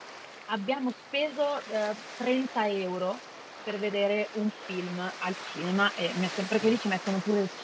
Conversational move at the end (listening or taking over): listening